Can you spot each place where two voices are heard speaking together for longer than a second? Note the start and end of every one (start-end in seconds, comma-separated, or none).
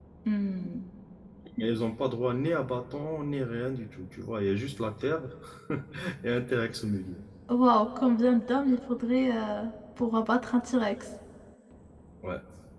none